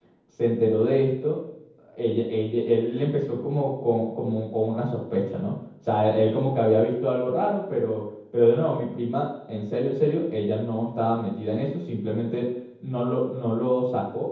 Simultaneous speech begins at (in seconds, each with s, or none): none